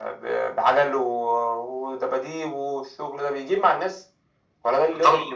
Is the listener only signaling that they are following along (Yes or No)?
No